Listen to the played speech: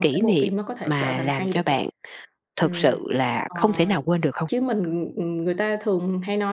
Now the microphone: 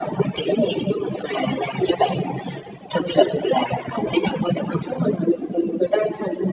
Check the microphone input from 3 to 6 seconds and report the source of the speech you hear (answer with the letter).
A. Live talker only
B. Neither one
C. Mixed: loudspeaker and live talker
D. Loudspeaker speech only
D